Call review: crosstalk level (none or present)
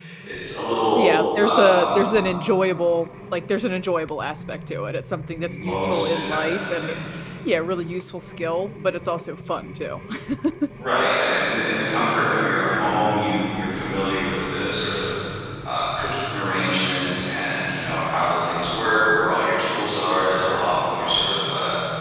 present